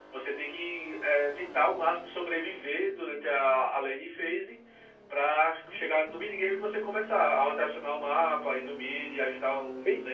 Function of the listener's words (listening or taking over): taking over